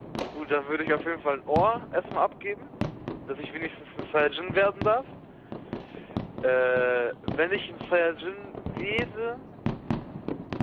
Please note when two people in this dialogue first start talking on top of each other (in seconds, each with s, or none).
none